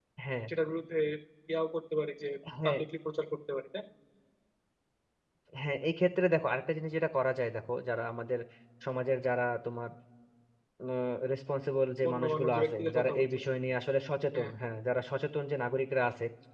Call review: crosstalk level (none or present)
present